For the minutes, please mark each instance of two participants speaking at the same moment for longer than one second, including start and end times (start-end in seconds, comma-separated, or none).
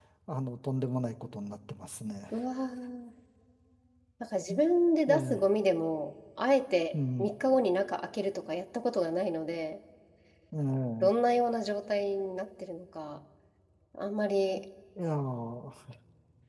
none